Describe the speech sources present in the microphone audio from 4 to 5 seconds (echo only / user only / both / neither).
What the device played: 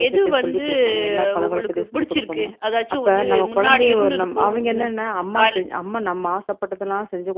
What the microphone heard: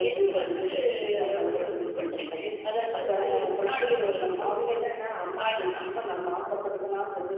echo only